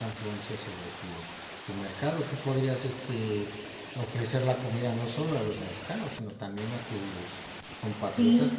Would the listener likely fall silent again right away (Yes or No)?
No